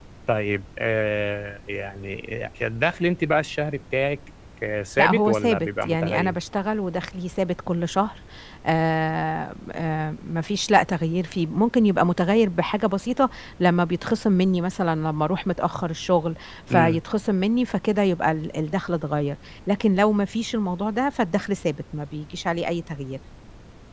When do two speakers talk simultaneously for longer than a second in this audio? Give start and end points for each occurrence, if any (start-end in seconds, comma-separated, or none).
5.0-6.4